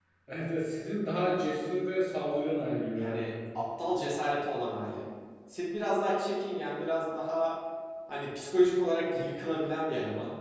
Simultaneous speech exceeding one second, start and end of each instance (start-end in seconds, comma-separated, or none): none